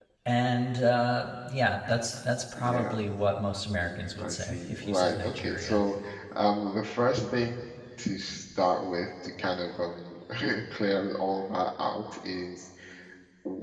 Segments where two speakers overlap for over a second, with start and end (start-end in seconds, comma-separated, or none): 3.8-5.8